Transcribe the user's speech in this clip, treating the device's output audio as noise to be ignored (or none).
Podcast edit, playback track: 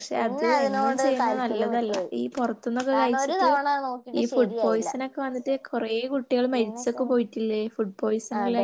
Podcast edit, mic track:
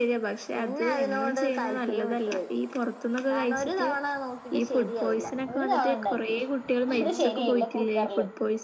ഒരു തവണ ഉണ്ടാക്കി അത് ശരിയായില്ല കുക്കറില്